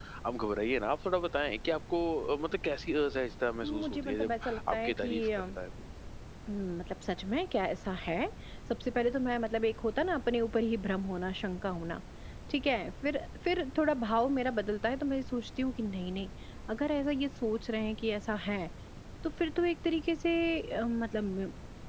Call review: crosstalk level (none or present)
present